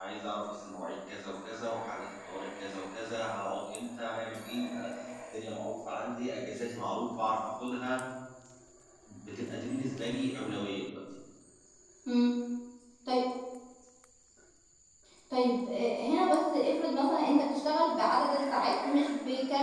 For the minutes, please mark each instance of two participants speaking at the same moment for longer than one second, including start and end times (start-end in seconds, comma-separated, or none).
none